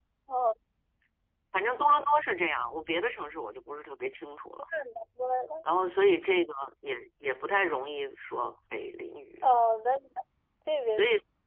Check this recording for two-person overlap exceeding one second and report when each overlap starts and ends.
none

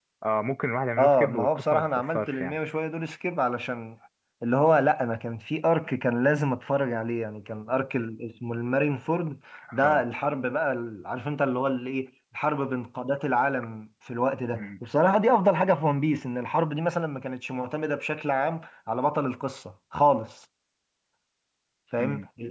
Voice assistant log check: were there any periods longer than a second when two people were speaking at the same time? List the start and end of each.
1.0-2.6

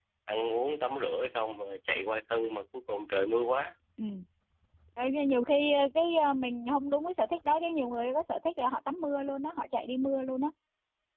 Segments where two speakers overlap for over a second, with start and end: none

